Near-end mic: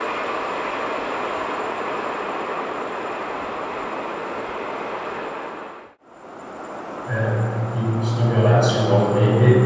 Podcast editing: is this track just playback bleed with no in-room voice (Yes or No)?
No